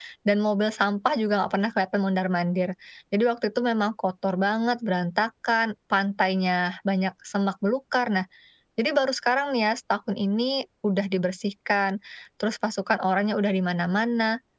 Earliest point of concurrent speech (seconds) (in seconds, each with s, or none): none